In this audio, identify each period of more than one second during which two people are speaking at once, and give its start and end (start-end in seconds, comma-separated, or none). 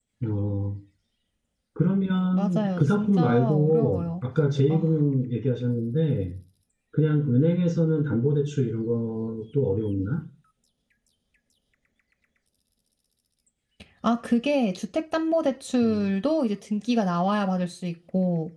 2.3-4.0